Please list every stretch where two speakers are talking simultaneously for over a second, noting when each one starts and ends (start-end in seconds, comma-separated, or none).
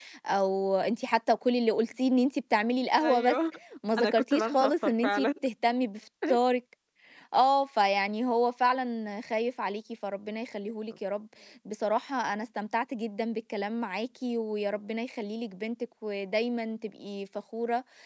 4.0-5.3